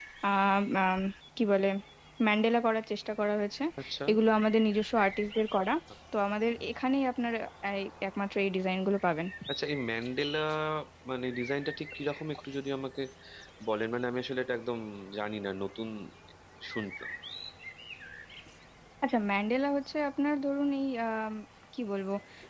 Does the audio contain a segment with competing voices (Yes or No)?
No